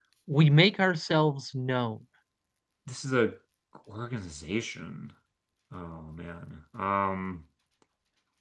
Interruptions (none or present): none